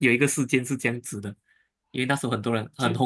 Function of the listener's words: listening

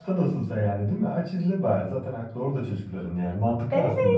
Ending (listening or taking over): taking over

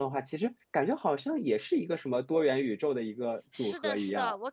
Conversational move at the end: taking over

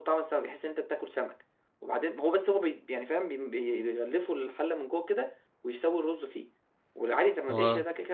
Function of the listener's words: listening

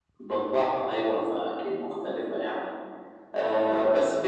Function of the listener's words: listening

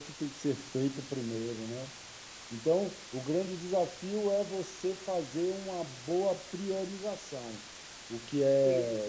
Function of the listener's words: listening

